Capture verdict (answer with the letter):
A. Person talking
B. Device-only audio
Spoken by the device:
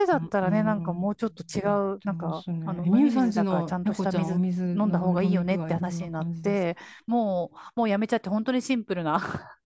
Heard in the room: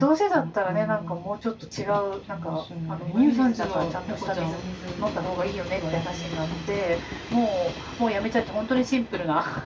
B